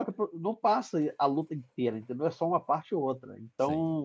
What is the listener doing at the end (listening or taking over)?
listening